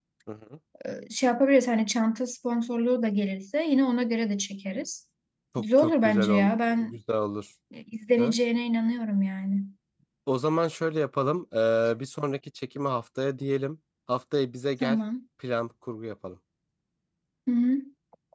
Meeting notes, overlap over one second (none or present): present